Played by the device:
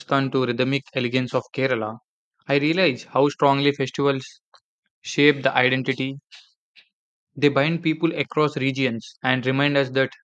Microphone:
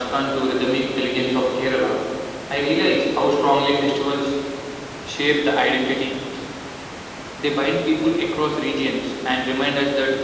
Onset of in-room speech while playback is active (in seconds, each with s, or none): none